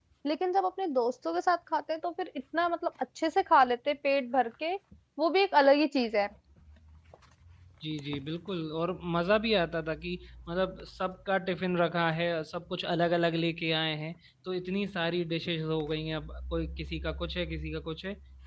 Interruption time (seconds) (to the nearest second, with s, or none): none